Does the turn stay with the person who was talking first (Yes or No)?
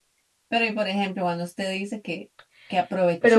Yes